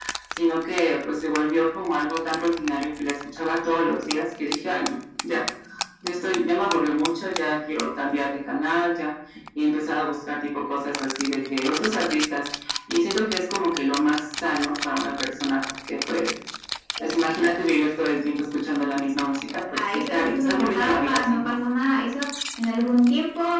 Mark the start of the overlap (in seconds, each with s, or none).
19.7 s